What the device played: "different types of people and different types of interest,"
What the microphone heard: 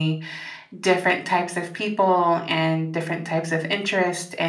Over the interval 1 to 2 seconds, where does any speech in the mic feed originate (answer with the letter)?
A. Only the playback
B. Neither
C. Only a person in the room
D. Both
A